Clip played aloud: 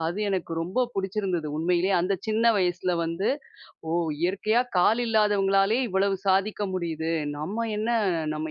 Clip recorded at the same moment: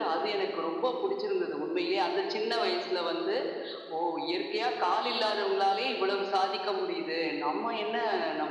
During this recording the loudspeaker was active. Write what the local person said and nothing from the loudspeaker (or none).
none